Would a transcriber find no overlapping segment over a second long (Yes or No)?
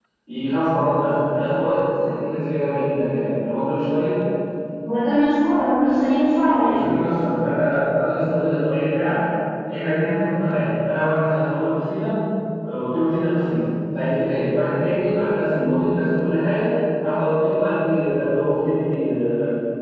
Yes